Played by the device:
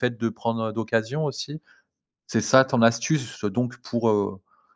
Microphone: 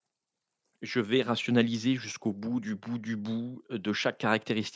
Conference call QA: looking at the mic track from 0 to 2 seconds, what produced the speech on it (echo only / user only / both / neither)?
user only